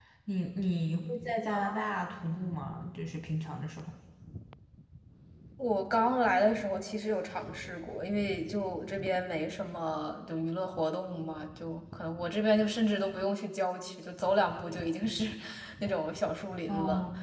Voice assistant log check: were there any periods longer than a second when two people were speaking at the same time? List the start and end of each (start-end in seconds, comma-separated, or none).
none